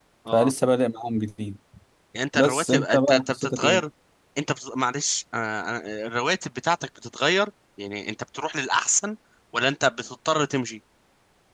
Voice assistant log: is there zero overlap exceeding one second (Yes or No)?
No